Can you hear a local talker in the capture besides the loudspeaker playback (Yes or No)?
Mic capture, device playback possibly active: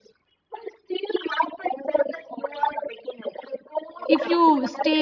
Yes